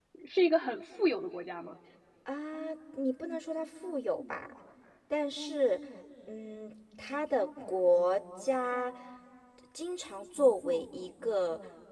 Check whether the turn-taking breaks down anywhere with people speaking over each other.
No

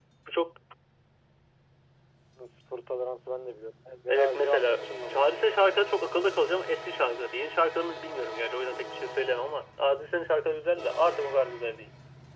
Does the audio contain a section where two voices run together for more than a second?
Yes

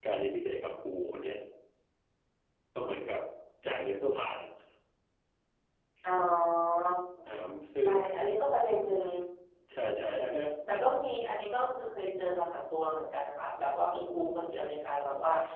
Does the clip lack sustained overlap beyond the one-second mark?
Yes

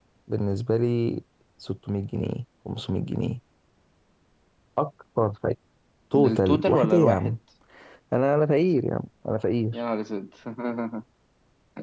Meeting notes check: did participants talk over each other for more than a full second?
Yes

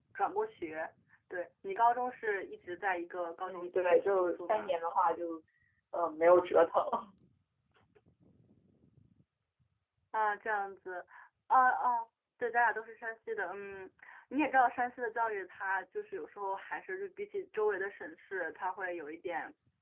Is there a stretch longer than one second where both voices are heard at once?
Yes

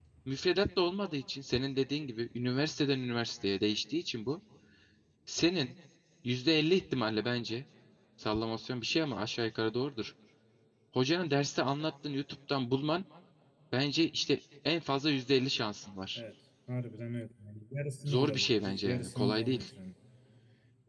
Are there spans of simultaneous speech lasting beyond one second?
Yes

